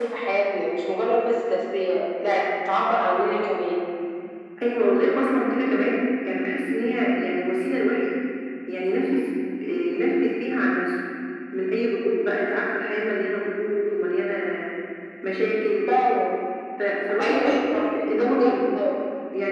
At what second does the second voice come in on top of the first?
17.2 s

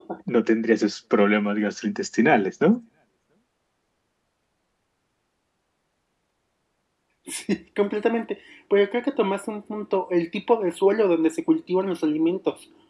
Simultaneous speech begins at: none

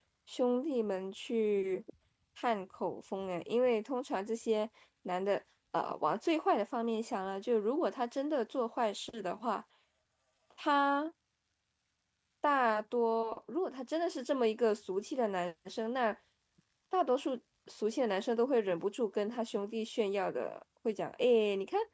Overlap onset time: none

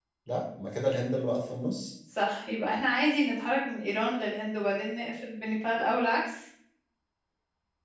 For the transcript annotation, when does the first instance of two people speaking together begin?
none

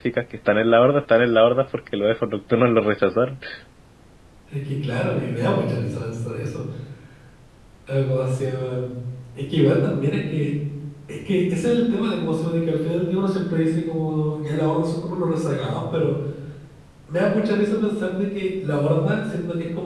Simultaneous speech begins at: none

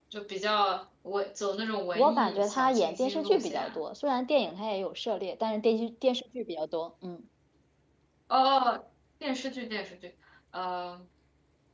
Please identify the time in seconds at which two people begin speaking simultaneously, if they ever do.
1.9 s

